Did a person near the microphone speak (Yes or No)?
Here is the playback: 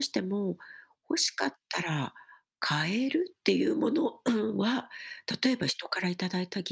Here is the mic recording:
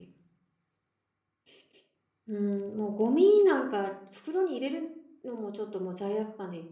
Yes